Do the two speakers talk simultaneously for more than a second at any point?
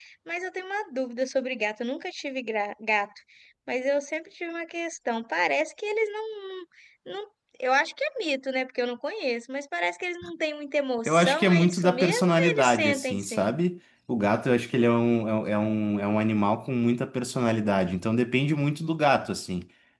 Yes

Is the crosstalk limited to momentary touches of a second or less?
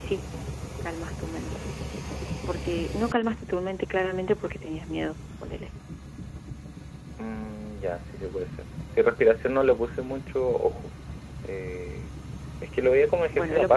Yes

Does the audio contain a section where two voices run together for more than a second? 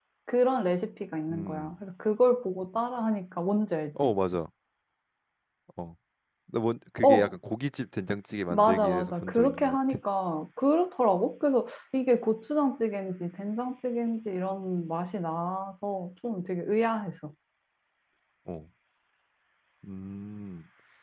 Yes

